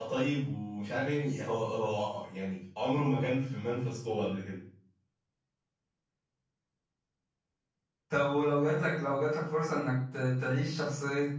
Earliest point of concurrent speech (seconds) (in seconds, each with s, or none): none